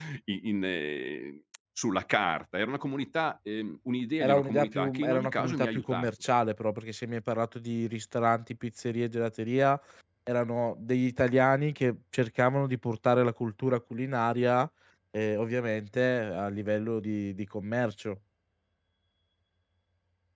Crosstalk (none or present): present